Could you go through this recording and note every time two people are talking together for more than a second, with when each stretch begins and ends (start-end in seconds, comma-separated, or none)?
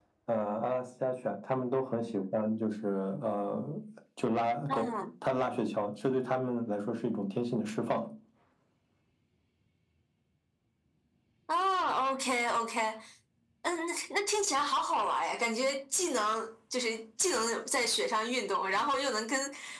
none